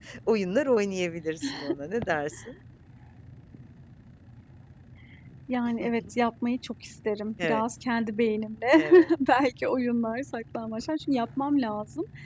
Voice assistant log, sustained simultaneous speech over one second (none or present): none